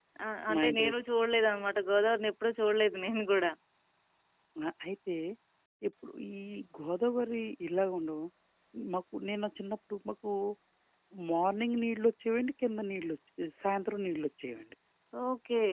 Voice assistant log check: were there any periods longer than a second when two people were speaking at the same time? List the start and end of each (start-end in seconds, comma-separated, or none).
none